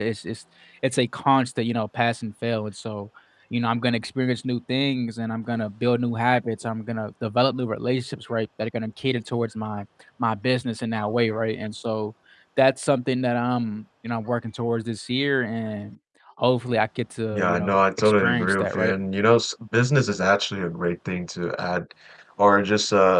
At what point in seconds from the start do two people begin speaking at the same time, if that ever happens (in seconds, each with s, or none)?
17.3 s